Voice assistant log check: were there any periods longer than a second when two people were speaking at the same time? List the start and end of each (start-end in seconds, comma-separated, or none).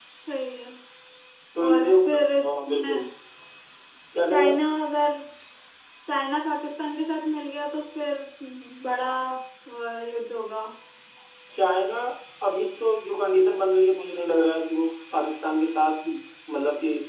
1.7-2.9